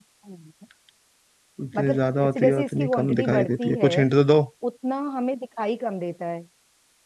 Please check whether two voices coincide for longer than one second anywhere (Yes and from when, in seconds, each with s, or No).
Yes, from 1.8 s